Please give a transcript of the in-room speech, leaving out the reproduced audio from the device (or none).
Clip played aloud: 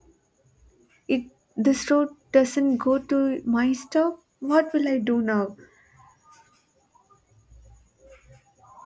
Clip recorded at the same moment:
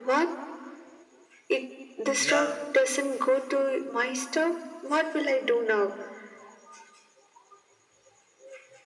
Yeah,